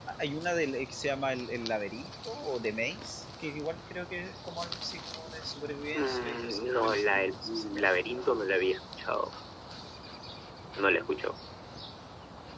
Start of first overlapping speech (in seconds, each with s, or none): 5.9 s